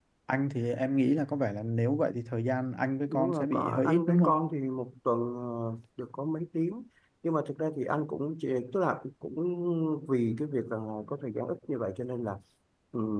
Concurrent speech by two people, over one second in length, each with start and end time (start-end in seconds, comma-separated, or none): 3.1-4.4